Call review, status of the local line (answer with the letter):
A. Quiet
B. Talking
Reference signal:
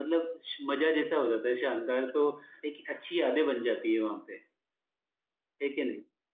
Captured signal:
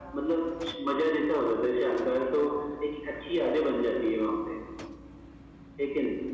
A